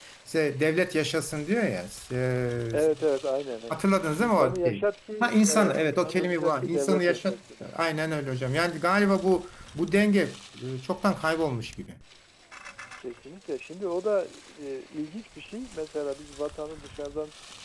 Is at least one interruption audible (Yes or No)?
Yes